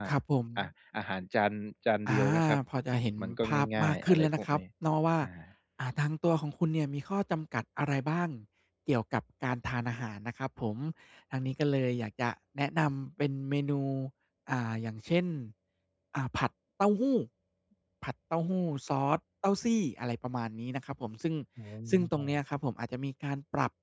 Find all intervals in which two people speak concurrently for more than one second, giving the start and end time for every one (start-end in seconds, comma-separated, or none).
3.2-4.6